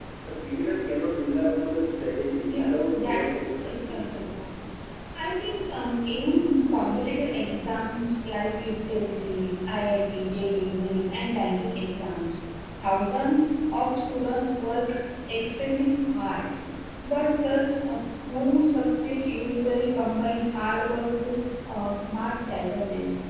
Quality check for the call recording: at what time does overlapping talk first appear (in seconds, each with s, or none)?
2.4 s